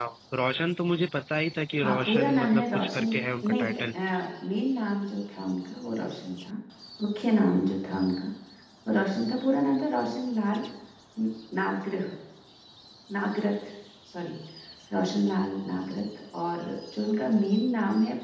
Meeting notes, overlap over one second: present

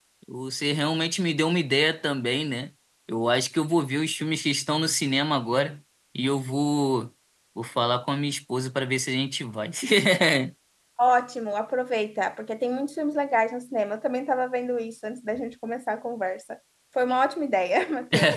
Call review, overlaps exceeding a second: none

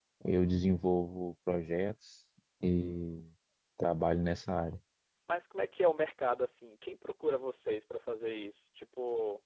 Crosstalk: none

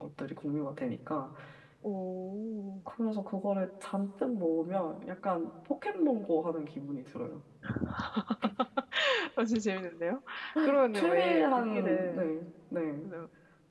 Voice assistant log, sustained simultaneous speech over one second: present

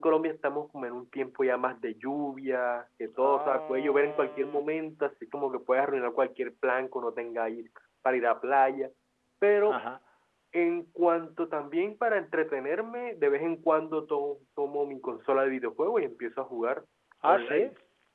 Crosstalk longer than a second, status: present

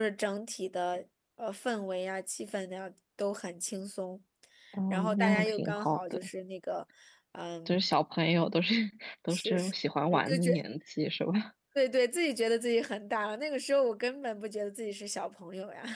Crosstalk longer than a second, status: present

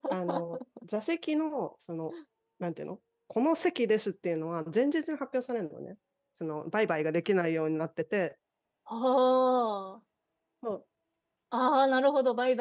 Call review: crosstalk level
none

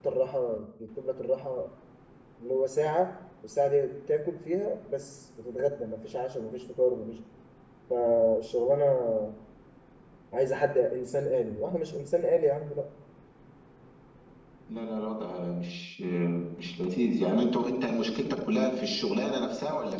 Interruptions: none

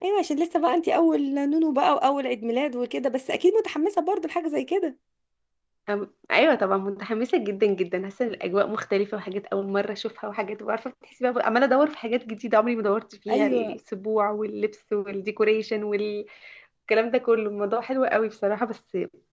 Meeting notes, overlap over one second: none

